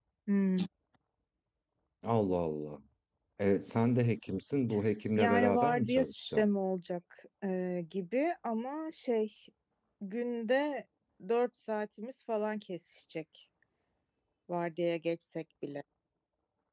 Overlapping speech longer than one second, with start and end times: 5.2-6.5

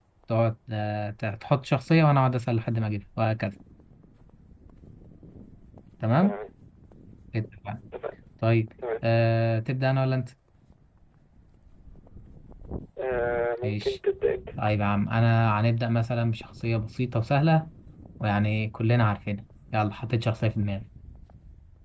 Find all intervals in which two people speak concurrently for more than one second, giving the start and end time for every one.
none

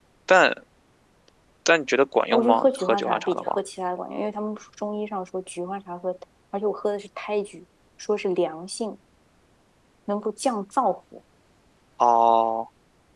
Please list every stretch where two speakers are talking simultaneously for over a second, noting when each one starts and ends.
2.3-3.6

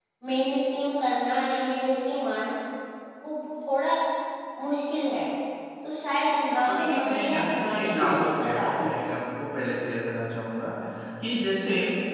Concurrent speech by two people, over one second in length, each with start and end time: 6.7-8.9

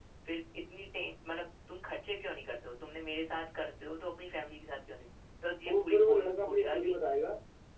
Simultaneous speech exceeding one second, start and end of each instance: 5.7-7.0

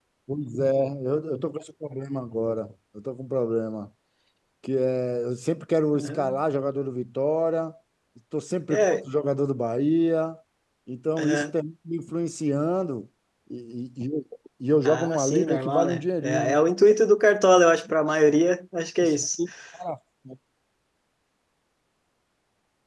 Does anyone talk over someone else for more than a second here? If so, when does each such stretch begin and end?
14.8-16.6

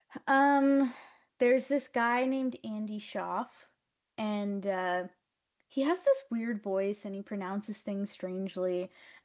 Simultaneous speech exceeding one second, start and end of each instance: none

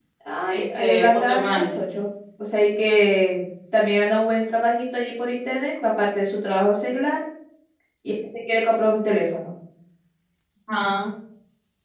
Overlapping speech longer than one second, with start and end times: 0.5-1.7

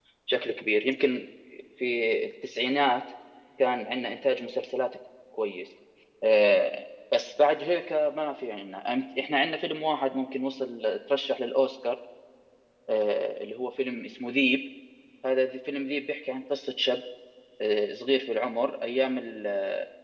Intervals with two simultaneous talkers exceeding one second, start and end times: none

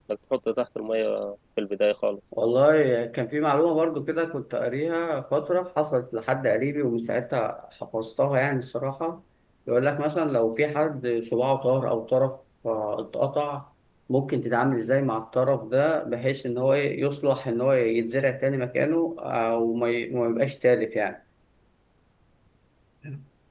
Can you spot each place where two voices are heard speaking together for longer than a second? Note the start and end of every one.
none

